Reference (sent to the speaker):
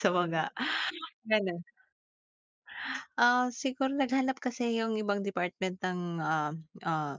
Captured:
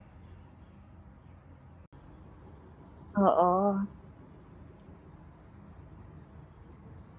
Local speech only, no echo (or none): Oo.